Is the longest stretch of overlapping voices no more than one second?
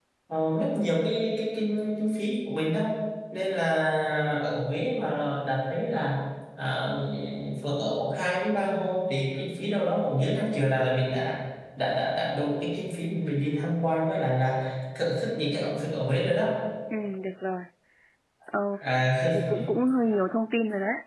Yes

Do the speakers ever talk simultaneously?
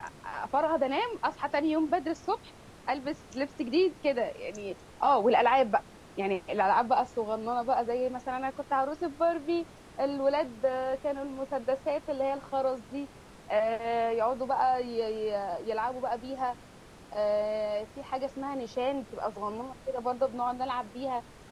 No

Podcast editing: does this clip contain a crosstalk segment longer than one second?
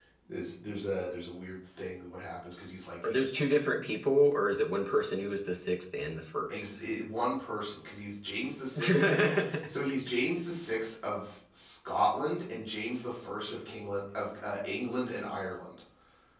No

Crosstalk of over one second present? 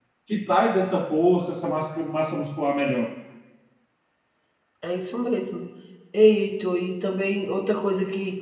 No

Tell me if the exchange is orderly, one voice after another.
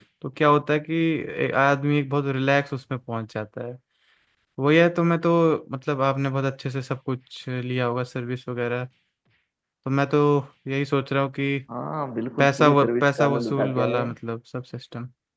No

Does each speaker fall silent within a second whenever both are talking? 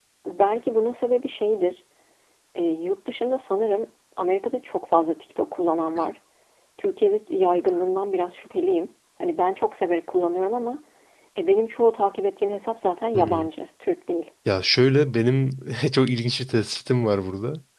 Yes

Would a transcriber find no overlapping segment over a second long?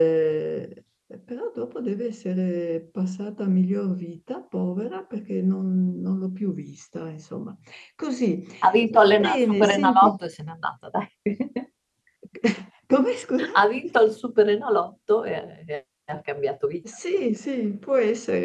No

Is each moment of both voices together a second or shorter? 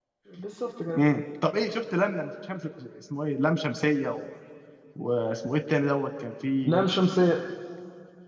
Yes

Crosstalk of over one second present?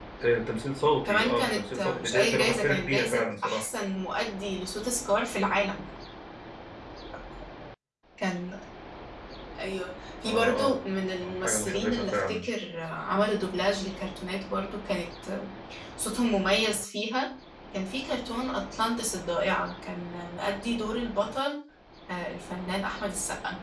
Yes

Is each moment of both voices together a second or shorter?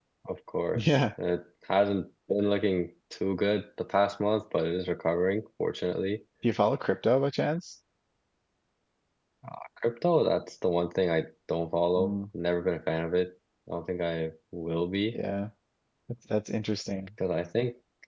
Yes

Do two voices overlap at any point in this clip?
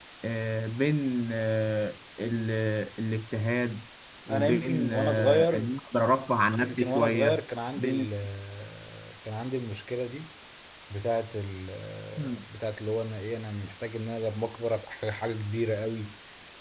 Yes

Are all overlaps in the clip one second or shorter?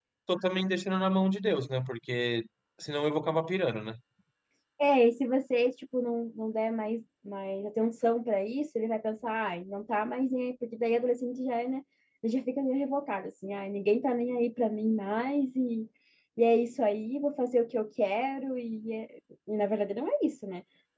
Yes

